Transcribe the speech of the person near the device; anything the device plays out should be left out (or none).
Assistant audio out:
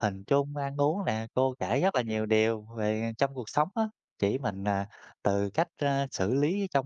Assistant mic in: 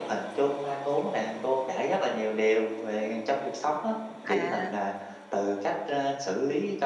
À!